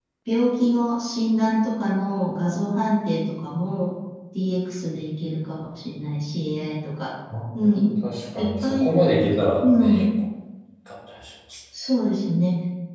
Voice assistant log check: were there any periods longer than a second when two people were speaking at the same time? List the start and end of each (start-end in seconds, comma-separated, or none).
none